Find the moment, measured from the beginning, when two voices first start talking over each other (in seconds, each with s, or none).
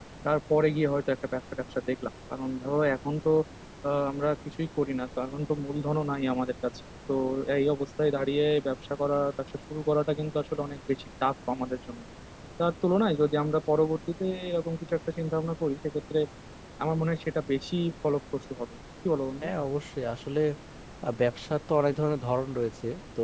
none